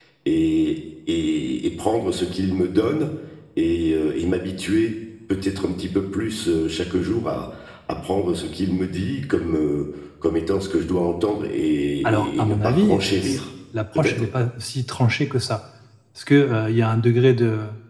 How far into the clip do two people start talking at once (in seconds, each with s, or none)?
12.1 s